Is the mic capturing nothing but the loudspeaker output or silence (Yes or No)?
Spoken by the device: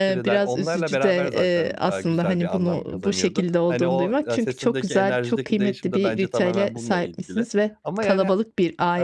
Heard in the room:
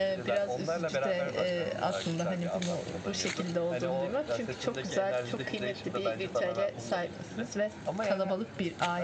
Yes